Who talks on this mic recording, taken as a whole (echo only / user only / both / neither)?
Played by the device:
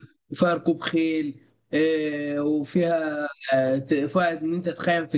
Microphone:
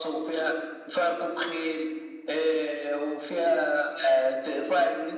echo only